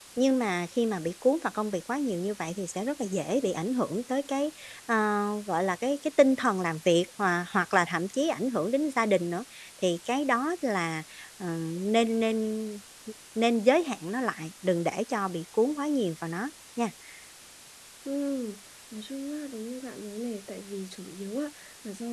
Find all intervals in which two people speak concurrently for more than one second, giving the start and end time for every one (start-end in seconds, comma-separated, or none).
none